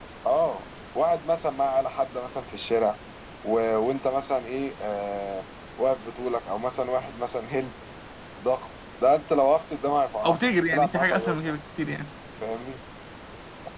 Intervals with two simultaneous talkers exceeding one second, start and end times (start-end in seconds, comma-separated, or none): 10.2-11.5